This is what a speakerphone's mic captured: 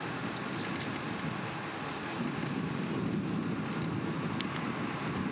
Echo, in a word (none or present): none